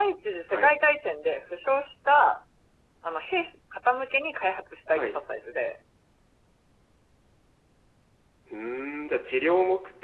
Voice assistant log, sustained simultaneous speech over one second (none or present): none